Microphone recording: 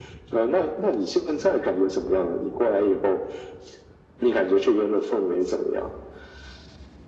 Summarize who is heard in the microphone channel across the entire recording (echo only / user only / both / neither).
echo only